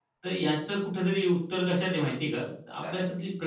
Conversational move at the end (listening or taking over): listening